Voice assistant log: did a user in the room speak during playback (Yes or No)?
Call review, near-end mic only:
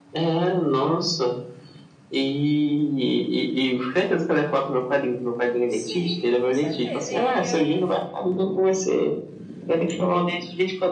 Yes